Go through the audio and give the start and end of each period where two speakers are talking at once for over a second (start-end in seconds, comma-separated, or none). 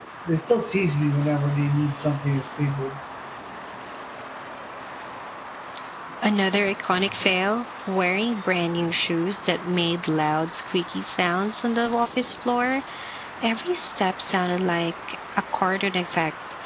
none